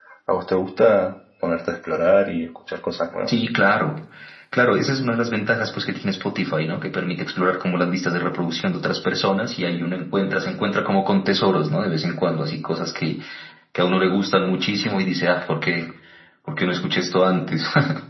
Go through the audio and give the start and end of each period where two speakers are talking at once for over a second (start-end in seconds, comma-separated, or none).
none